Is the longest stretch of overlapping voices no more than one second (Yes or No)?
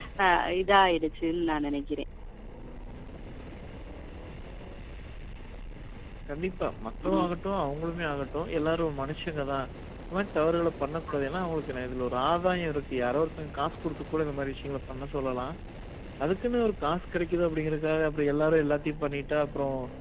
Yes